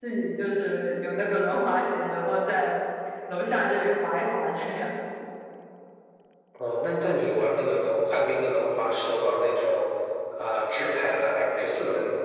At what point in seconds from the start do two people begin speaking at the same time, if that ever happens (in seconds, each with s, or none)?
none